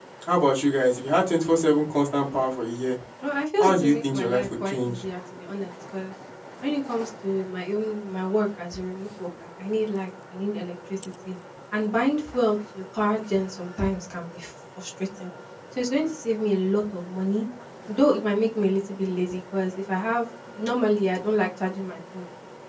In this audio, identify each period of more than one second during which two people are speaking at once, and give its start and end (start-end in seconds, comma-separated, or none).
3.6-5.0